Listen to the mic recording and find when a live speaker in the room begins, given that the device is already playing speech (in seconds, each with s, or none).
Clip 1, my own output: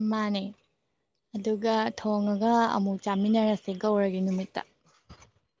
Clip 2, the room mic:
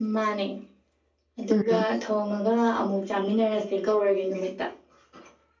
1.5 s